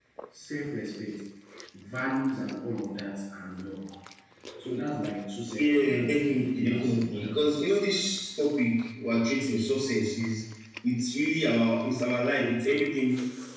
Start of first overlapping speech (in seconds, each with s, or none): 5.6 s